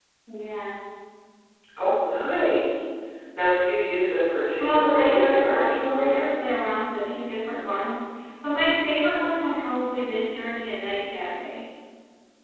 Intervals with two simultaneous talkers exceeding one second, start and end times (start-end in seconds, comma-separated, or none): 4.6-6.2